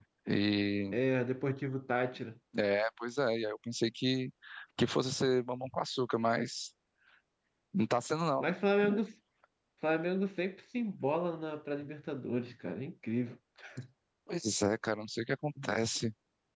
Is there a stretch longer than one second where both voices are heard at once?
No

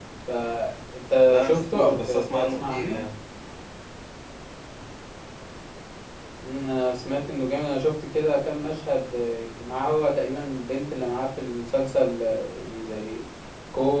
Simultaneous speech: Yes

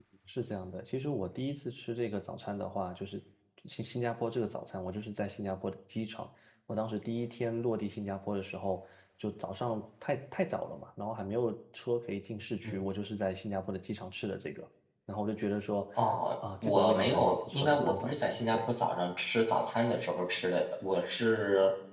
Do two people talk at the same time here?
Yes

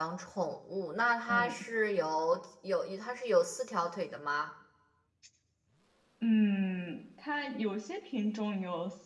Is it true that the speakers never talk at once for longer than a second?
Yes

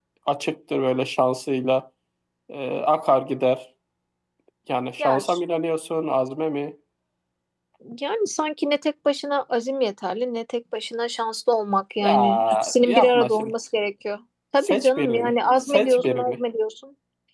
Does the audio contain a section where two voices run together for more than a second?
Yes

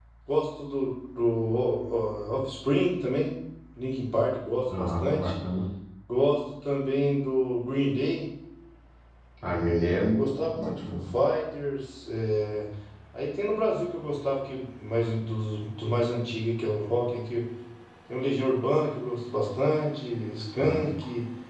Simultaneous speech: Yes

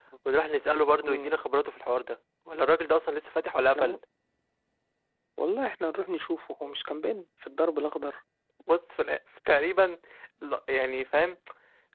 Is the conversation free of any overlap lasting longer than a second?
Yes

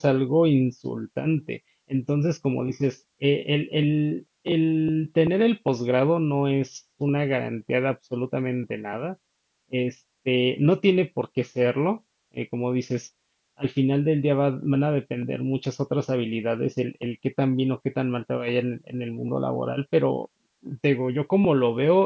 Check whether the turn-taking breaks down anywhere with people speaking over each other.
No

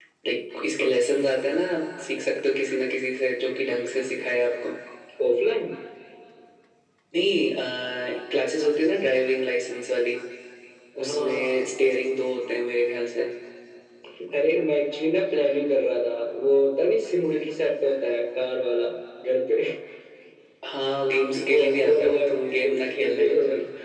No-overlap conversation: No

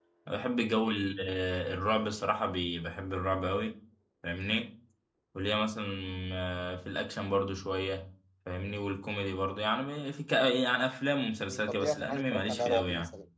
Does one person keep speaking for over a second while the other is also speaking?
Yes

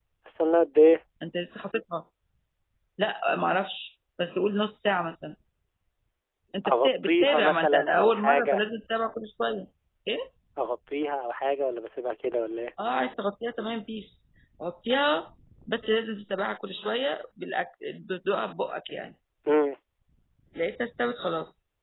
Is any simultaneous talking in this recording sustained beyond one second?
Yes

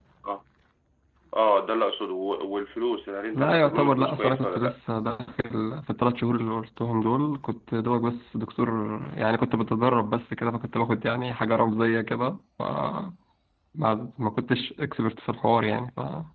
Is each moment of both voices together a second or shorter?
No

